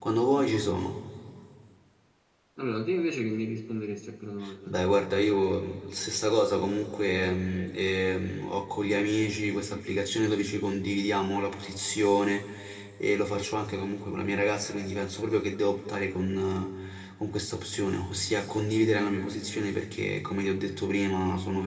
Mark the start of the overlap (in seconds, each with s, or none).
none